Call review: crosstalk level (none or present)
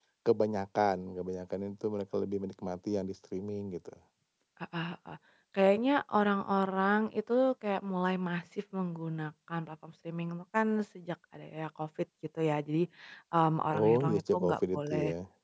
present